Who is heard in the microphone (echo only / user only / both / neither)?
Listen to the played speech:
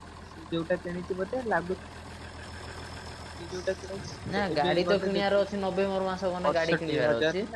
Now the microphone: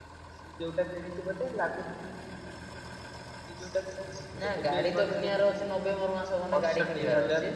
echo only